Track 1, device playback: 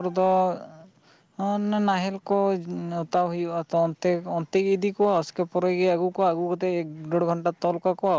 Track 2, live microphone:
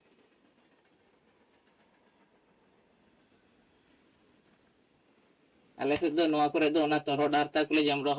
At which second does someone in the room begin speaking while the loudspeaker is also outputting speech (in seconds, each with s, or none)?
5.8 s